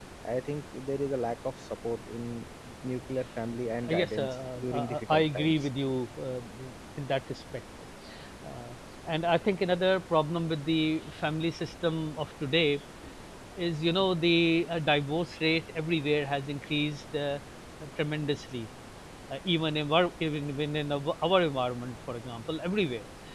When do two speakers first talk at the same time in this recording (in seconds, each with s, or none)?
3.8 s